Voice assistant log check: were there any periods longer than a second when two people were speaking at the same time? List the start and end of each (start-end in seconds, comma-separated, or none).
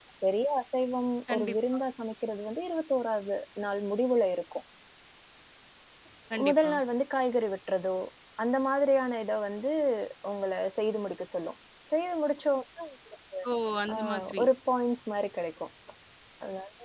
none